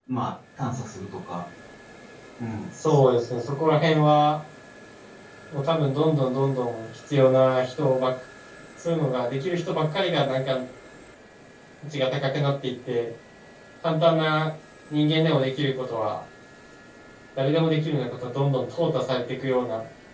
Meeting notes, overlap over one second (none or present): none